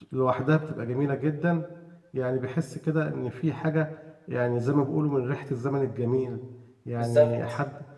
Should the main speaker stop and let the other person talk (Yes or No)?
No